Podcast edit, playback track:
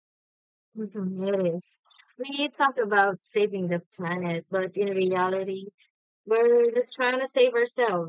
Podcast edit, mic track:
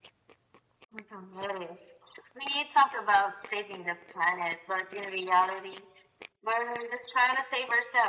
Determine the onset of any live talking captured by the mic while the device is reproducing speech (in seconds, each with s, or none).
none